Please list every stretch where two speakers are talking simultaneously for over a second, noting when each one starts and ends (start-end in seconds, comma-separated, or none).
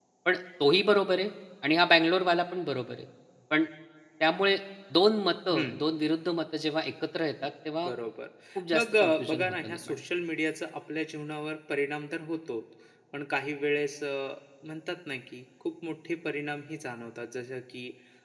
8.7-10.0